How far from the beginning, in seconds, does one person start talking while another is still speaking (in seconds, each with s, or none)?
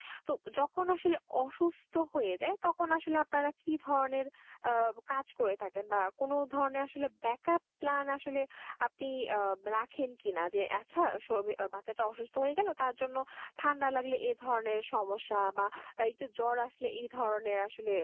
none